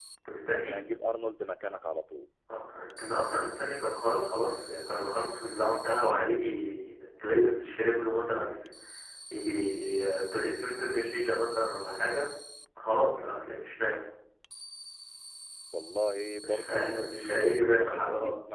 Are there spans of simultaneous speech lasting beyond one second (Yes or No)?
Yes